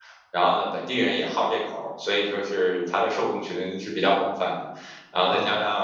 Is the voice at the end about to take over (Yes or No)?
No